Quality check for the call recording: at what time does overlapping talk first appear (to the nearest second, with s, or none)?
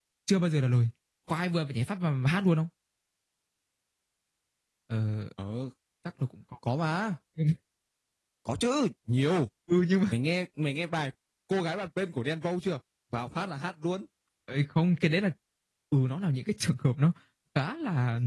none